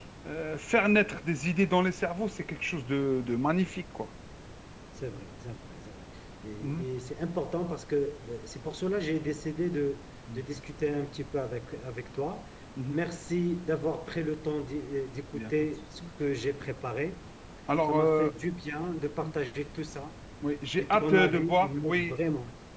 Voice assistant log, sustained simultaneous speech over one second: present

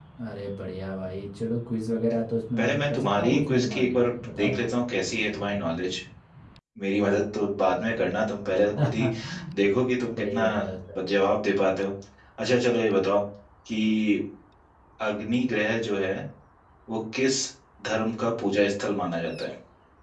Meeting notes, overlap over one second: present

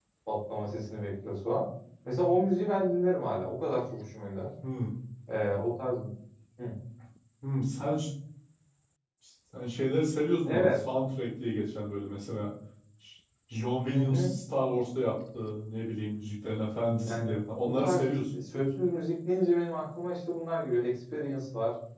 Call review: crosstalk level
present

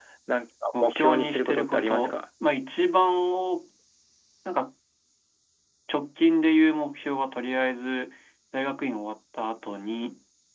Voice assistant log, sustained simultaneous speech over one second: present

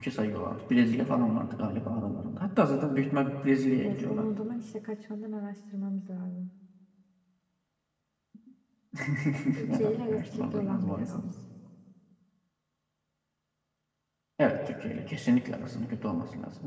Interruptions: present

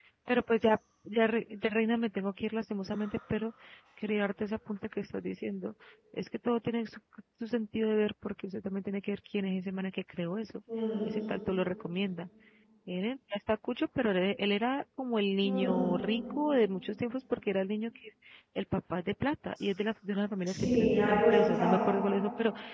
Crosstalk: present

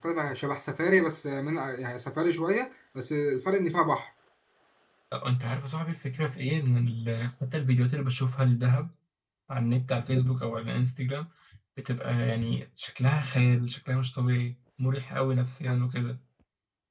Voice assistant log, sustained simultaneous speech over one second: none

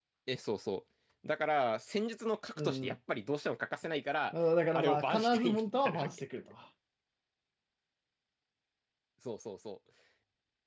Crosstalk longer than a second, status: present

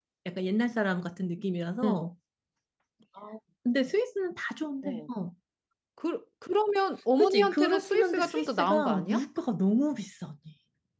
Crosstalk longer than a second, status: present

